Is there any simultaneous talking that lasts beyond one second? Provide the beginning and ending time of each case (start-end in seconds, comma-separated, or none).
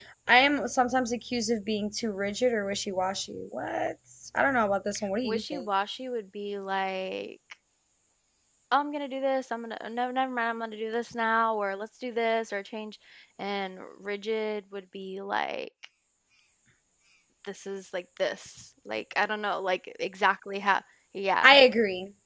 none